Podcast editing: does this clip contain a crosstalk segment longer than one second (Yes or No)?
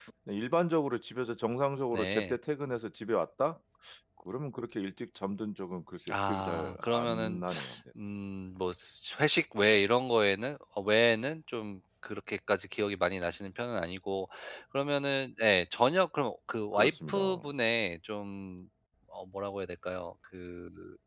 Yes